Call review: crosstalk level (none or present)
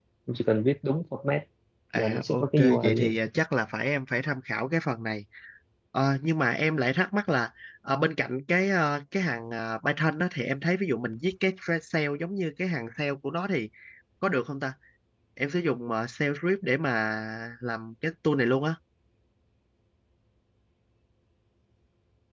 present